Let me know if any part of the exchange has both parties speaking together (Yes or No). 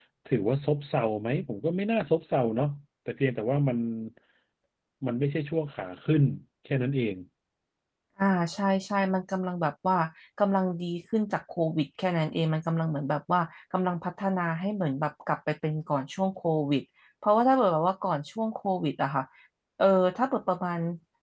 No